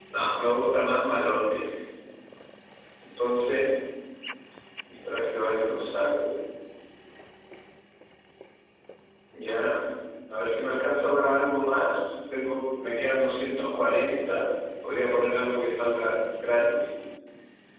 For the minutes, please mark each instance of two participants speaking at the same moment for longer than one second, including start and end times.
none

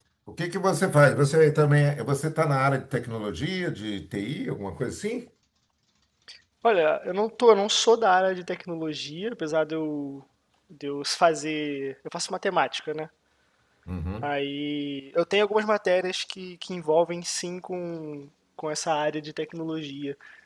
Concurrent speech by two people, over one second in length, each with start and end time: none

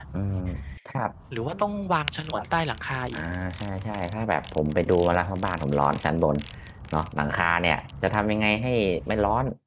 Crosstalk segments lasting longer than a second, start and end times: none

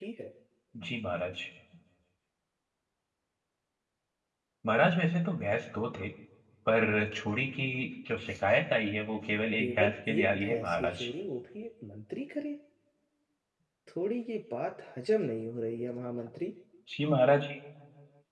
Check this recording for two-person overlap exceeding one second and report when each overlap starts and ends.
9.6-11.0

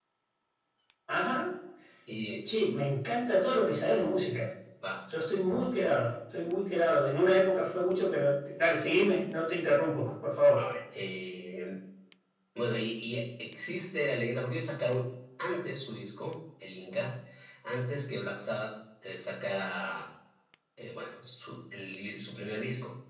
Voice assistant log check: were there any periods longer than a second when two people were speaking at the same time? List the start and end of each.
none

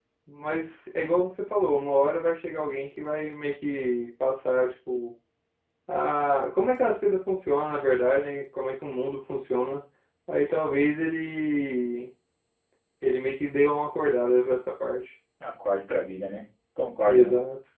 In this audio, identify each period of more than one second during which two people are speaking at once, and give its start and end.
none

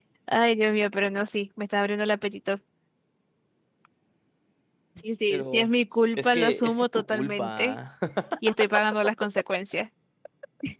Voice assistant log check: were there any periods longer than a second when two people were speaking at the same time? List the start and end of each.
6.2-7.8

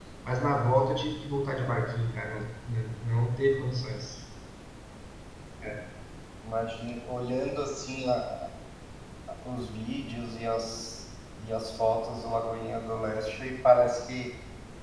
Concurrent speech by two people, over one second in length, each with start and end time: none

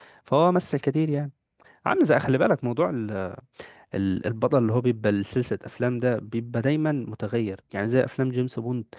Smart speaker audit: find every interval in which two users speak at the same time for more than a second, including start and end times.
none

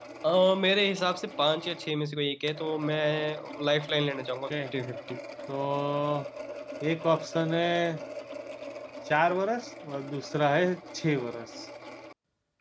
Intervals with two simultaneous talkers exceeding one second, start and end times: none

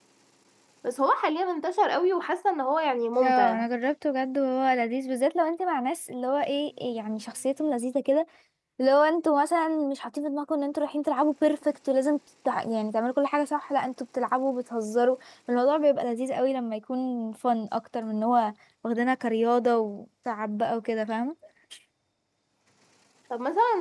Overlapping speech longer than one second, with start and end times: none

